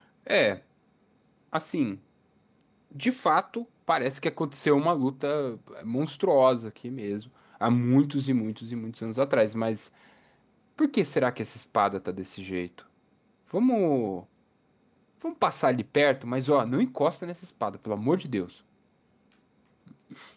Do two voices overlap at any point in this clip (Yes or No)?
No